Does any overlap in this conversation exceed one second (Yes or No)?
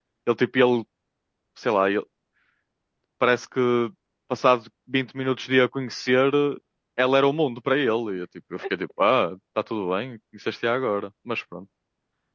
No